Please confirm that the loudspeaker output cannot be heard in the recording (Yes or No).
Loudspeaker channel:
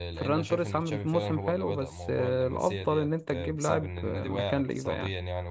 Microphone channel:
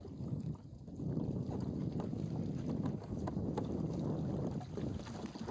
Yes